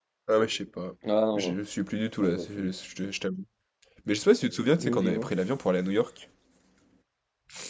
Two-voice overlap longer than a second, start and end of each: none

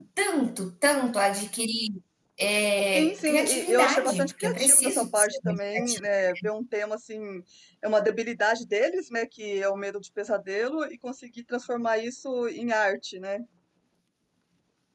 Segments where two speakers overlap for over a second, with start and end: 2.9-6.1

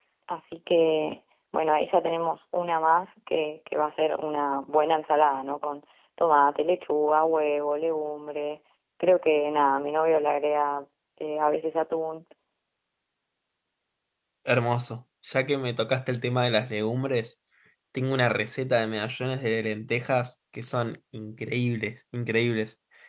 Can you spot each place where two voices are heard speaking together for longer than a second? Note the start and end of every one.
none

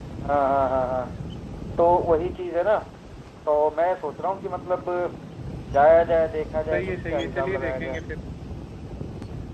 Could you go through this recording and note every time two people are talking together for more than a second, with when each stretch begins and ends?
6.7-8.0

